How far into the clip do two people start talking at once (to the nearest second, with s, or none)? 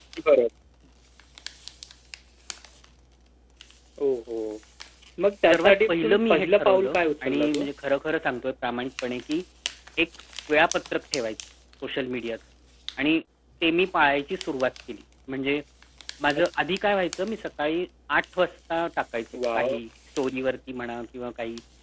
5 s